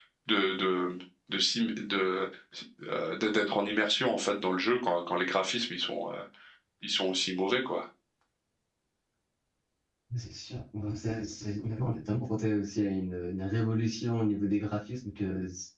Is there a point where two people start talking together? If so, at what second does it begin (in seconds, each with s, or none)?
none